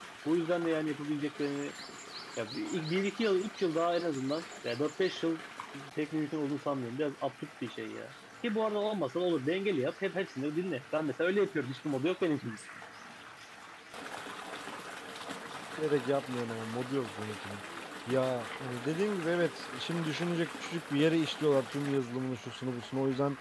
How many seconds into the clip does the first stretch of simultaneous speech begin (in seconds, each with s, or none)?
none